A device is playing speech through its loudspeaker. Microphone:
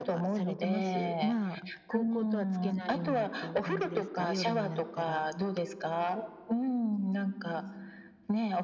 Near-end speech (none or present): present